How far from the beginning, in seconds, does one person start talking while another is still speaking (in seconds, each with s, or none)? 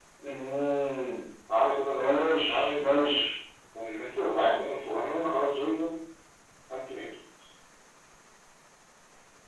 2.0 s